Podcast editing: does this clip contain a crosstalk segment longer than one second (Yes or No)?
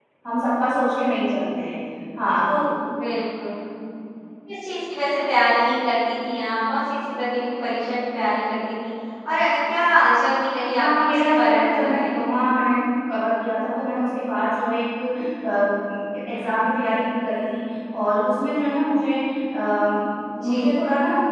Yes